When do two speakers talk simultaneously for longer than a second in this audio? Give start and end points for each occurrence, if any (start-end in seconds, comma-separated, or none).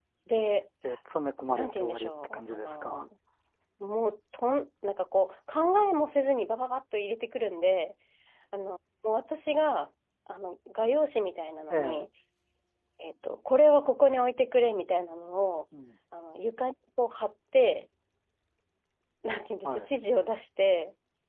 1.5-3.0